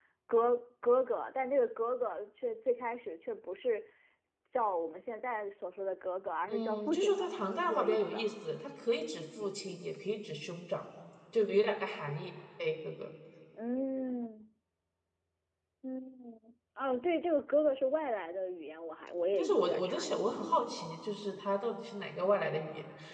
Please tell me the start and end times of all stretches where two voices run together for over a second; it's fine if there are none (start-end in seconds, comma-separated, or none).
6.5-8.2, 19.4-20.7